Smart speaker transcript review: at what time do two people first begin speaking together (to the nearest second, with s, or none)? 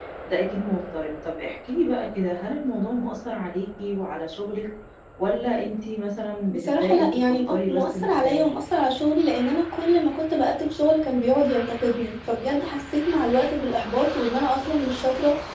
6 s